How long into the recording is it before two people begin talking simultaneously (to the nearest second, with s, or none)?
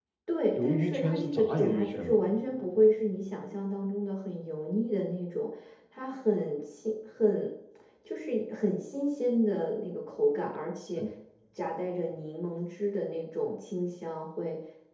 1 s